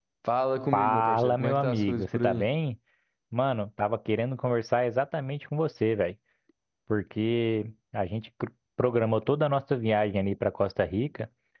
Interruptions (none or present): present